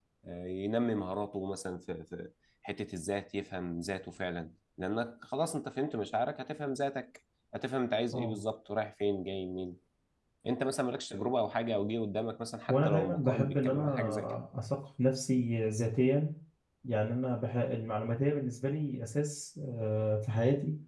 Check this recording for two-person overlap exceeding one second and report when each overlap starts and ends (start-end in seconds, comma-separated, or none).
12.7-14.4